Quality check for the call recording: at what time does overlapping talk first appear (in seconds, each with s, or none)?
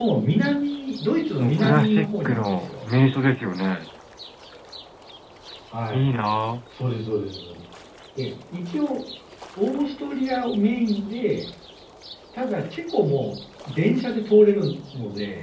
1.4 s